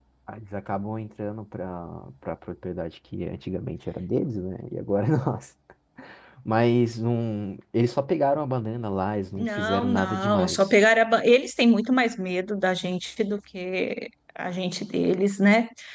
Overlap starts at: 9.4 s

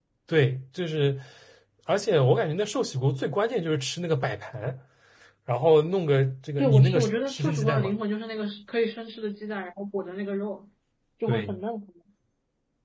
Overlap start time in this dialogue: 6.6 s

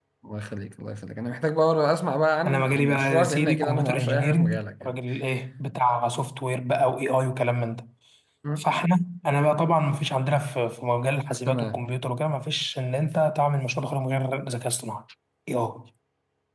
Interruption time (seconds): 2.5 s

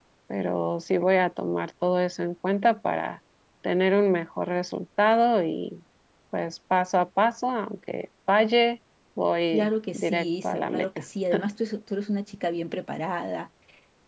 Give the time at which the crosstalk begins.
9.5 s

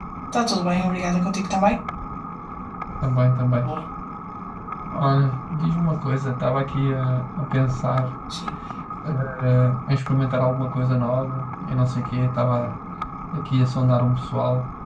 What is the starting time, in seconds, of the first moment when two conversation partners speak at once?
none

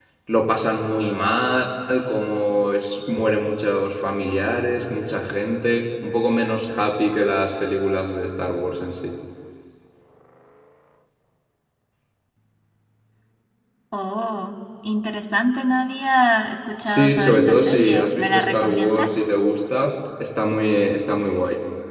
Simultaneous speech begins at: 16.8 s

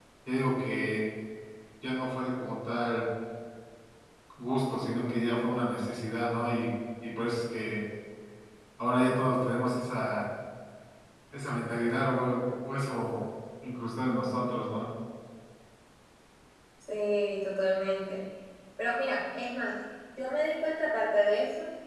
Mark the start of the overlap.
none

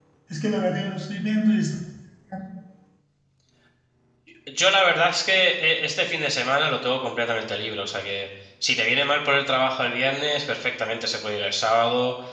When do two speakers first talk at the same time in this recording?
none

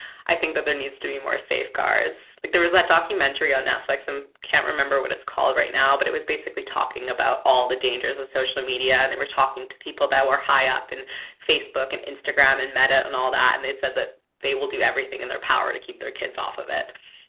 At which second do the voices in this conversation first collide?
none

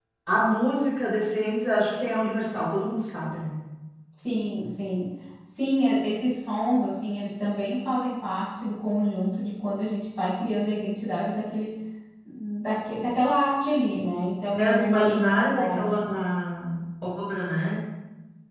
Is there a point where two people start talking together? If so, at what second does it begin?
14.5 s

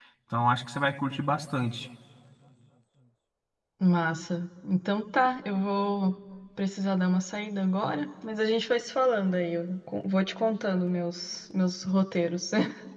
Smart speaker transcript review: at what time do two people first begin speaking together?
none

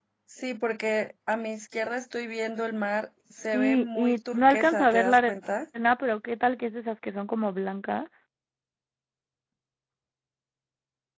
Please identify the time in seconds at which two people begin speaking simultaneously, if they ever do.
3.5 s

